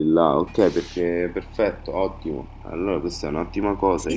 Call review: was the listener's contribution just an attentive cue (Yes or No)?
No